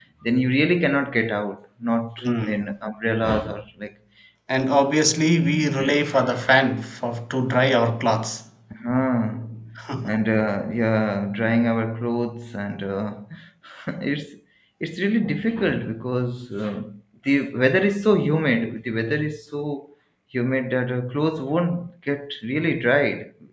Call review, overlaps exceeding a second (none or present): none